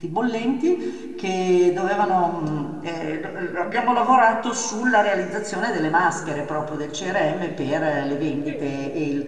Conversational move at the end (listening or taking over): listening